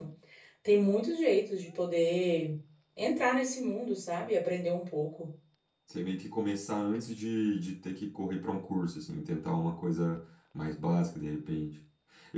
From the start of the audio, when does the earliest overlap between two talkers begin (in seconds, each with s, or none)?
none